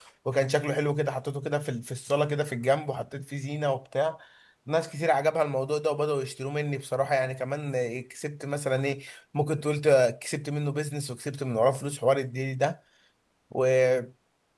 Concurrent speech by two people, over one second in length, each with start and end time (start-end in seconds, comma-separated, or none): none